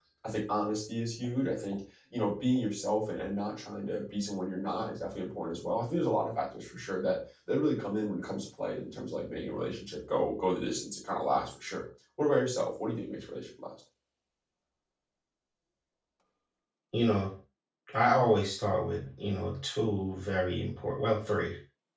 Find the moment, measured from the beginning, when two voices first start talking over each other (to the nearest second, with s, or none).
none